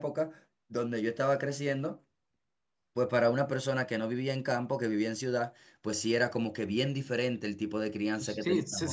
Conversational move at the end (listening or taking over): taking over